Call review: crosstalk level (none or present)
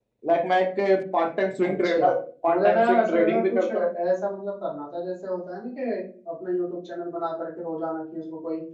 present